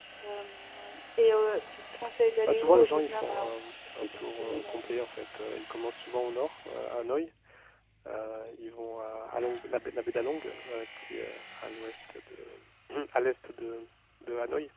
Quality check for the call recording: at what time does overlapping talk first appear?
2.4 s

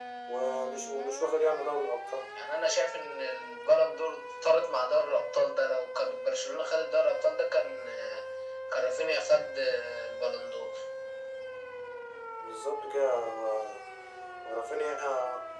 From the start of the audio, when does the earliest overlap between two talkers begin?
none

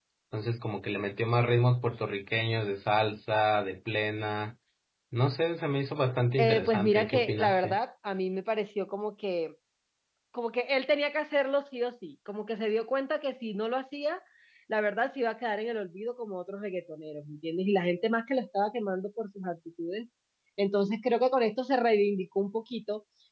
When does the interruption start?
6.4 s

